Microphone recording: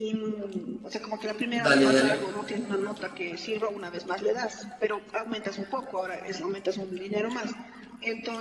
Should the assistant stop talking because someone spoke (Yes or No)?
Yes